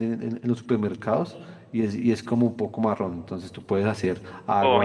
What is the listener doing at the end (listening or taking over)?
taking over